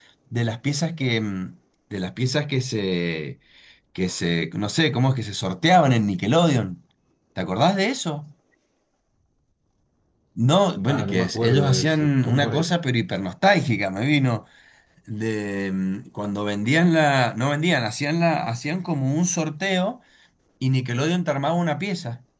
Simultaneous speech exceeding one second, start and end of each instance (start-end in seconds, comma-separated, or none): 10.9-12.7